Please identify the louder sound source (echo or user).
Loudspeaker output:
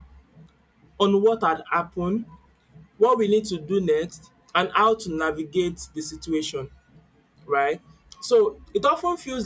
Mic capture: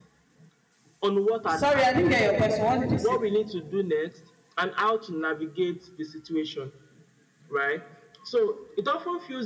user